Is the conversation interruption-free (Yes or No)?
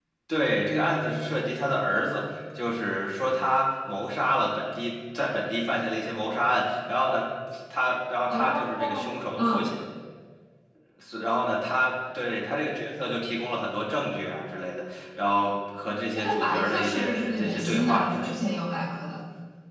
No